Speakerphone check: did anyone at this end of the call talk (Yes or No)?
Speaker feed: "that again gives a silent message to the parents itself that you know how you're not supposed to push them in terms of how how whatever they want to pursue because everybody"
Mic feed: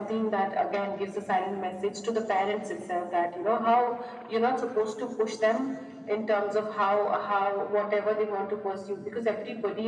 No